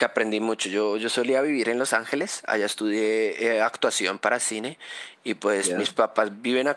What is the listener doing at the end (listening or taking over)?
listening